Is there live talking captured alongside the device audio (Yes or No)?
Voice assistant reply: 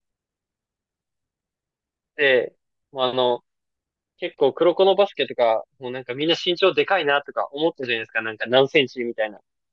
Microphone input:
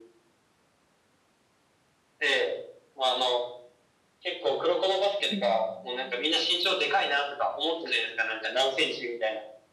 Yes